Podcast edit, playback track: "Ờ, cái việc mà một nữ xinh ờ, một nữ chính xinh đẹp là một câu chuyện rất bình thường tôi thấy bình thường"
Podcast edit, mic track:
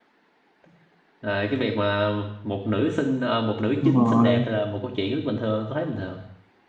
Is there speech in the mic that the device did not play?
Yes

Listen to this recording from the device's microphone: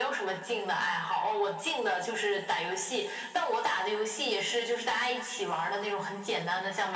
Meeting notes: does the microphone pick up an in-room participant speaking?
No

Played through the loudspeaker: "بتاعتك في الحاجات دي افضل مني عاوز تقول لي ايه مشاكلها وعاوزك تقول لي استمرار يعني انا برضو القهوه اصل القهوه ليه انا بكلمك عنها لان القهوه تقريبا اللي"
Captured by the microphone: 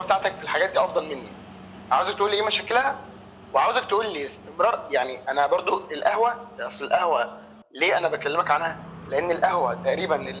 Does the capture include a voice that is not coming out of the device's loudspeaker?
No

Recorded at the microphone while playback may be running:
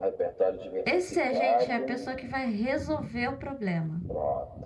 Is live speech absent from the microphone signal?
No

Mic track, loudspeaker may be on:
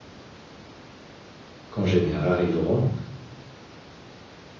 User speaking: Yes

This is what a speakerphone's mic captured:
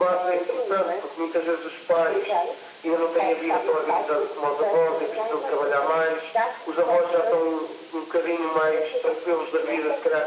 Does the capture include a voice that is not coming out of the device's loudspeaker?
No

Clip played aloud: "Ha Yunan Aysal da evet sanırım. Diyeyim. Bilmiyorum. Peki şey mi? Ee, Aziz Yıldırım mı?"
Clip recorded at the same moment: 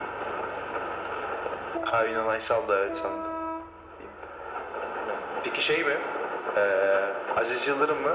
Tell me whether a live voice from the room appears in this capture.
No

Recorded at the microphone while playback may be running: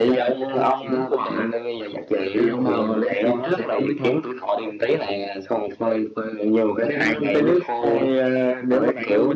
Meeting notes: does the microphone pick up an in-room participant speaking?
No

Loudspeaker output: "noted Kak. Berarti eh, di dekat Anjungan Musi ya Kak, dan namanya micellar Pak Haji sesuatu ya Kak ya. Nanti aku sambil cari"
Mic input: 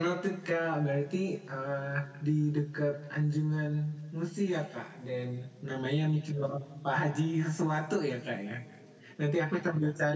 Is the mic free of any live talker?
Yes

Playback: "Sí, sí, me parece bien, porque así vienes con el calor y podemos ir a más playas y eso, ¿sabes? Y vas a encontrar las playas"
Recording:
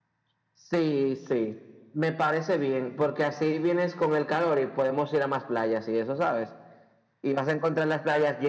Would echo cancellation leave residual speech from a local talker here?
No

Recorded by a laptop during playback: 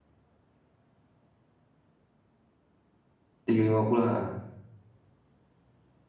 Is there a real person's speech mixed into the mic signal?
Yes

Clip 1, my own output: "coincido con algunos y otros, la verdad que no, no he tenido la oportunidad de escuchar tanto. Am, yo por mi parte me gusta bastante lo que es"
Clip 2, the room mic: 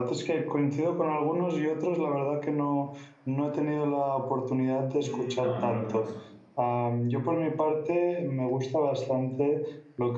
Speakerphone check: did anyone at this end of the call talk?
Yes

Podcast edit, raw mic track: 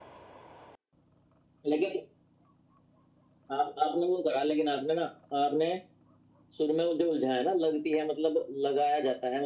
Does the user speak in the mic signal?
No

